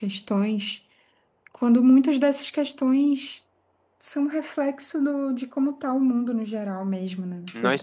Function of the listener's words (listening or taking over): taking over